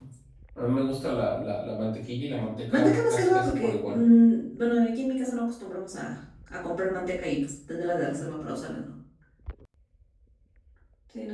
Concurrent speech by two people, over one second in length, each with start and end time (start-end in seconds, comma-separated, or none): 2.7-4.0